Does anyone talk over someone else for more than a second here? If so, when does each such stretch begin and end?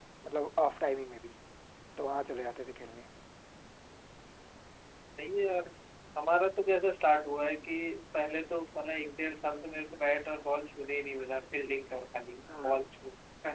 none

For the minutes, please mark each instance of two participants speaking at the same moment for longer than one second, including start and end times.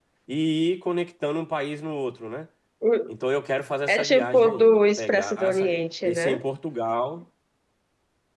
3.9-5.7

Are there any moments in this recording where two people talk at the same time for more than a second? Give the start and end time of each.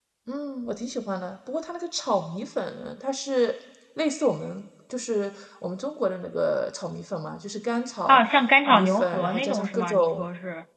8.7-10.3

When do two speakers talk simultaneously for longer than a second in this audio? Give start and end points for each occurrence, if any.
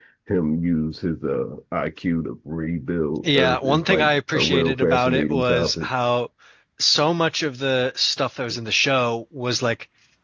3.2-5.9

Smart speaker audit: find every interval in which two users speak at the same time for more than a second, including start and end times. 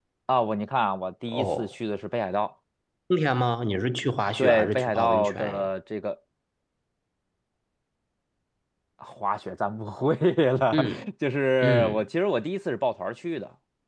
4.4-5.7

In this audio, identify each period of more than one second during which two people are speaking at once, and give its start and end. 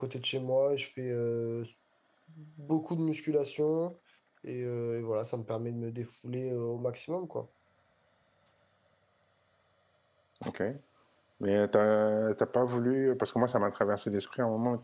none

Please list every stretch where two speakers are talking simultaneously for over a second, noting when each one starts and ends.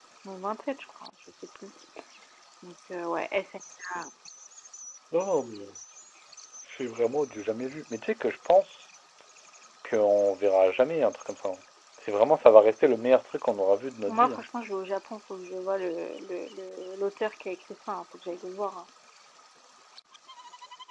none

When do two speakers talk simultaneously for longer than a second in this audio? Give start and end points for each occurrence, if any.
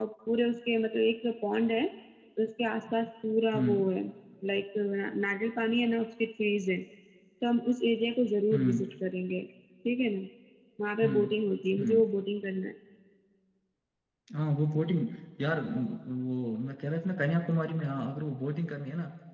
none

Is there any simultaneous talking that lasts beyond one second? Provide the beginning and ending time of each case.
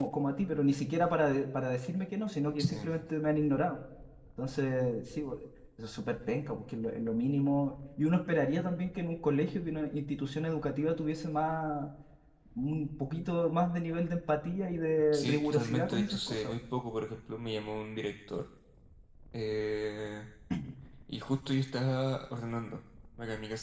15.1-16.5

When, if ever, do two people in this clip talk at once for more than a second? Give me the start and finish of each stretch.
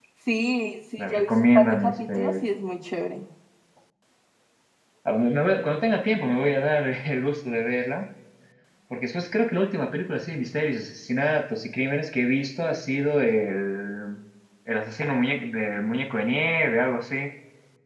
1.0-2.3

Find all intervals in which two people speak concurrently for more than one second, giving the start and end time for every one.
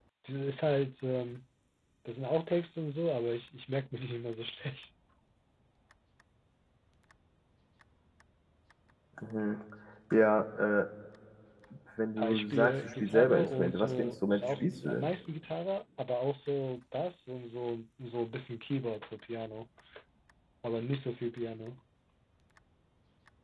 12.2-15.1

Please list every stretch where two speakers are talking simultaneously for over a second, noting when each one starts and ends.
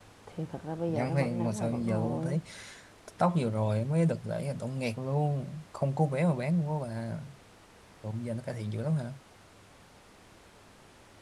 0.9-2.4

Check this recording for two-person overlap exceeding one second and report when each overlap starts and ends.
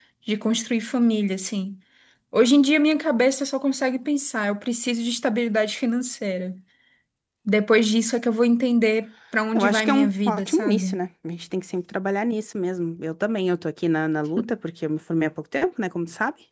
9.6-11.0

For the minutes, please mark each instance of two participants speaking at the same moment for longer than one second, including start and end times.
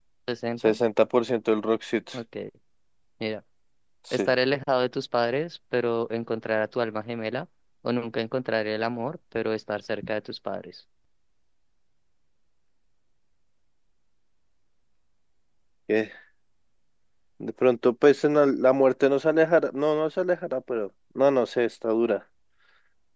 none

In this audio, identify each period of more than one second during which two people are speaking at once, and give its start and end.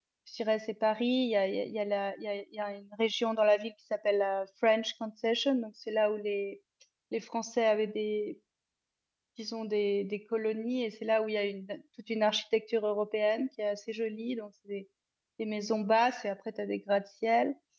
none

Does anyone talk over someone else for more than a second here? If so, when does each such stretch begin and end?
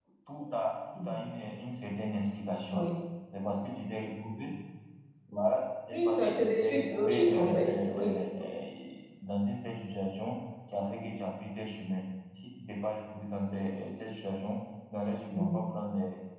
5.9-8.2

